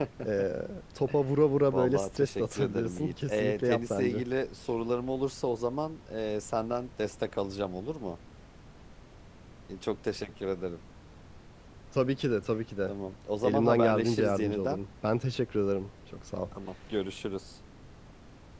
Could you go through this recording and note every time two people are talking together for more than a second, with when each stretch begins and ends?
1.7-4.2, 13.4-14.8

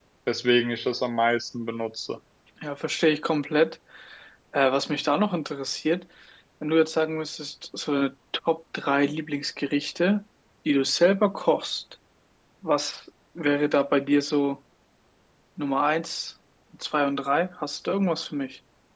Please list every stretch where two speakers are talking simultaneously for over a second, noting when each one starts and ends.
none

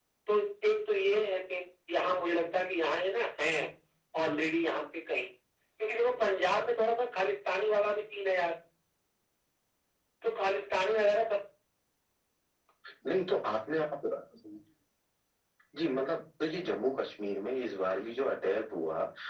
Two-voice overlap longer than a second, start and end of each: none

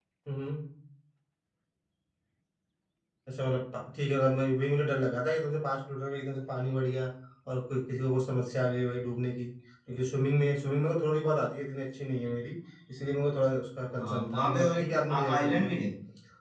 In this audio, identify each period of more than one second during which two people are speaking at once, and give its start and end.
14.0-15.7

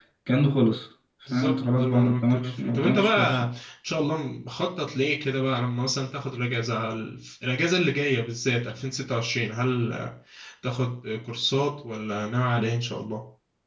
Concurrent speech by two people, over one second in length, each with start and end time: 1.3-3.5

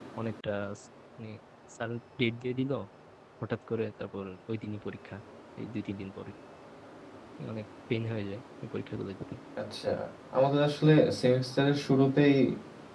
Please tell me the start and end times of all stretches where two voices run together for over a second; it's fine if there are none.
none

